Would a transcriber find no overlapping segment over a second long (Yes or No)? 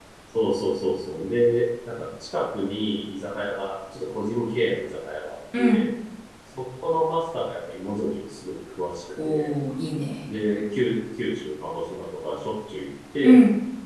Yes